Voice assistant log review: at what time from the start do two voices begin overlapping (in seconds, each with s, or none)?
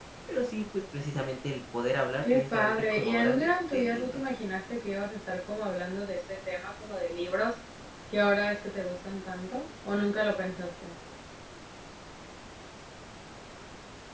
2.2 s